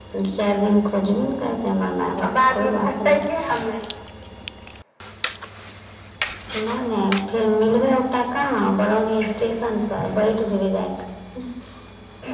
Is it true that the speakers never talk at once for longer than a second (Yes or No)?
No